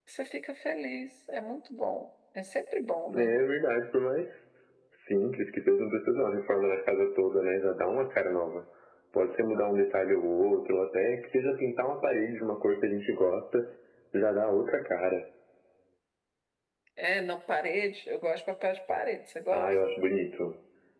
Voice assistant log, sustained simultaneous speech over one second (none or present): none